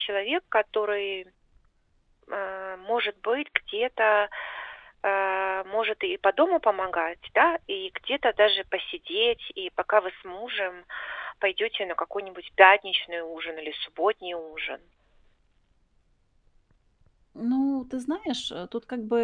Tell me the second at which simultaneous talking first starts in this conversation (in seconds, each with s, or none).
none